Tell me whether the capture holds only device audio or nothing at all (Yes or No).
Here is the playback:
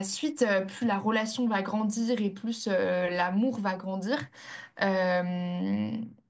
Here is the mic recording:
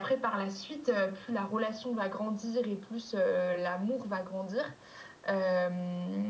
Yes